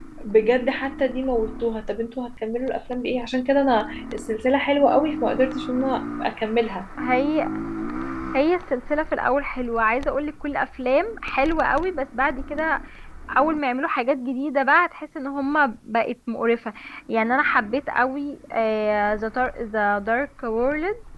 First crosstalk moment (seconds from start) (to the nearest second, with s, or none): none